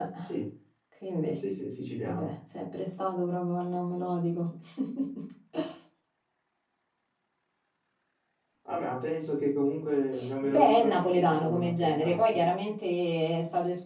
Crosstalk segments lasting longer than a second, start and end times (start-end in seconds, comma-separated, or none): 10.4-12.3